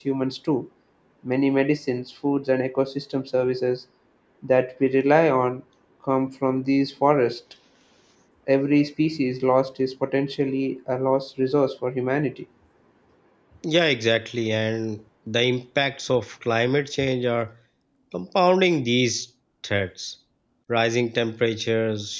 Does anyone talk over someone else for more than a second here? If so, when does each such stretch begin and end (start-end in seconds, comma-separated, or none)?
none